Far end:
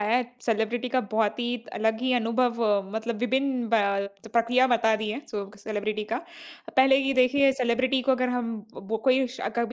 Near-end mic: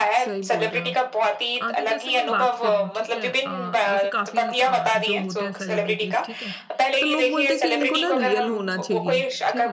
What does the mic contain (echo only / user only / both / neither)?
both